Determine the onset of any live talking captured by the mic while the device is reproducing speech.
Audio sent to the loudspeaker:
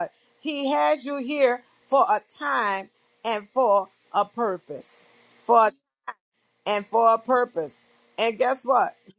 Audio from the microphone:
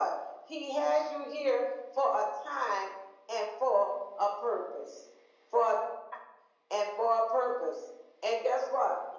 none

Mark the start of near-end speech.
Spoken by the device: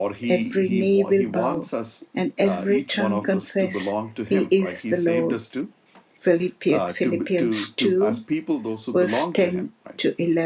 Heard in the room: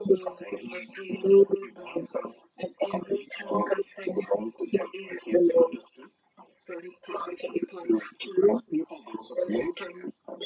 none

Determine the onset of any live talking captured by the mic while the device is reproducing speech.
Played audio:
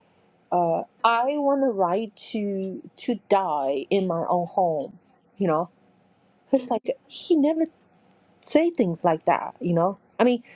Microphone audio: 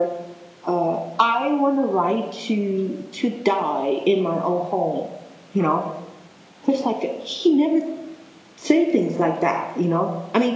none

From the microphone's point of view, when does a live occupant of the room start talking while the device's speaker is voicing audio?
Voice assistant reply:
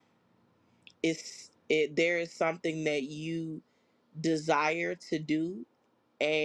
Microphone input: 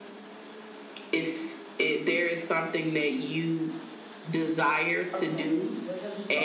5.1 s

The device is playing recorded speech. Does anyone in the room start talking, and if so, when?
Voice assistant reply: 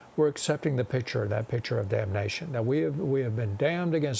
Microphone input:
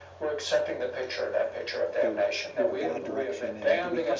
2.0 s

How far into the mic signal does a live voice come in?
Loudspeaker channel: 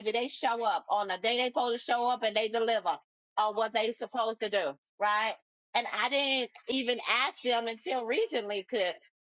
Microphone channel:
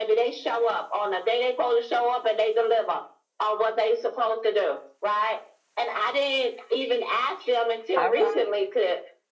7.9 s

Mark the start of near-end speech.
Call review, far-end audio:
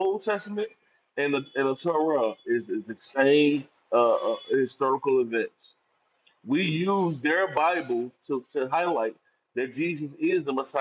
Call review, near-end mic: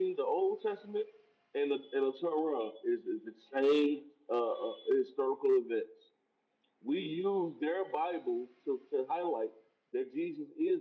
none

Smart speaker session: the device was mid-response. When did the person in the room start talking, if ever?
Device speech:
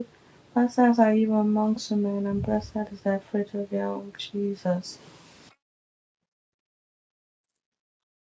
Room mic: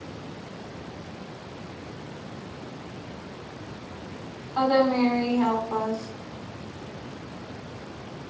4.5 s

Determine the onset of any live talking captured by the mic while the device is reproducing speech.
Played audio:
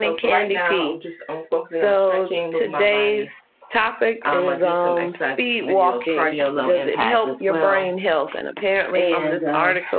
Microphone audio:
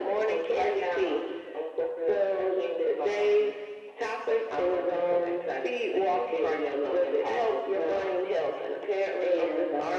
none

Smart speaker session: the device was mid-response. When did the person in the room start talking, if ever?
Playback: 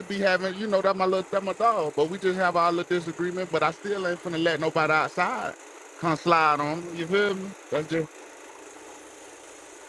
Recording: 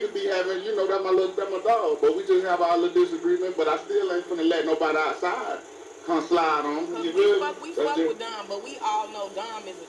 6.9 s

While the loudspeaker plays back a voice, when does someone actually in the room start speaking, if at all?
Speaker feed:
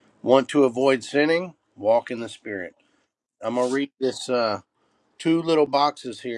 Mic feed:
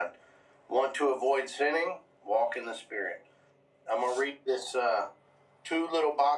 none

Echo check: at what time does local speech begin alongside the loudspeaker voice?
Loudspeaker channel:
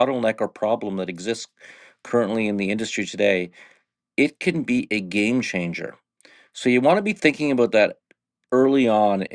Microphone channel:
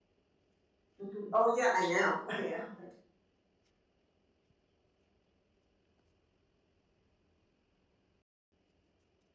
1.0 s

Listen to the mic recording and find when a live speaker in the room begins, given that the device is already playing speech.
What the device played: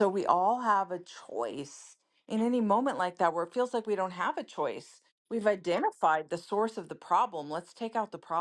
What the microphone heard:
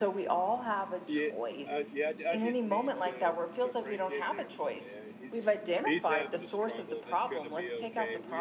1.1 s

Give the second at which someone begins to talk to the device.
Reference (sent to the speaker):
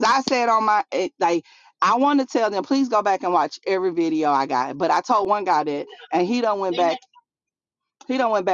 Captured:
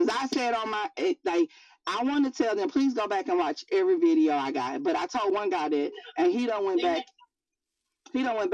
none

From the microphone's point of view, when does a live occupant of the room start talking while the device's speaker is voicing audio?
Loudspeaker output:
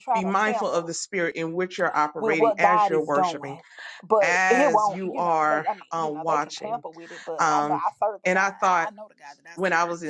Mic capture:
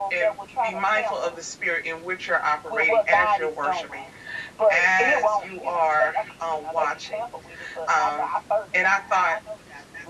none

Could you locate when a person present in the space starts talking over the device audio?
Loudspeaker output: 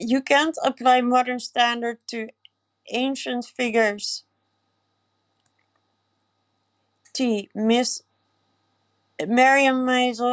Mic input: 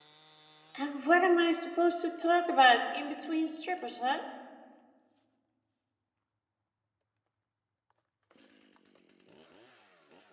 0.8 s

